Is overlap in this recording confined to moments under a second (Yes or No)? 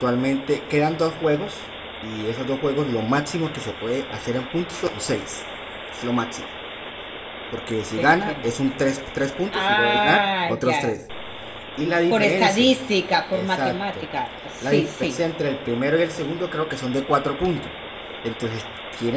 No